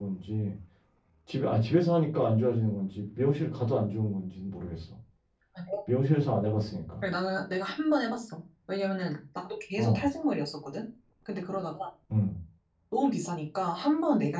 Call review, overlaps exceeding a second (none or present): none